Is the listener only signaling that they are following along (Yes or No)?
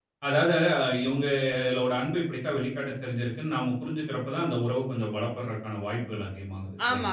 No